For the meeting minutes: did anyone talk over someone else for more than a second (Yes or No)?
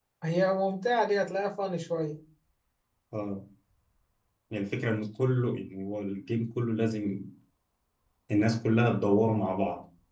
No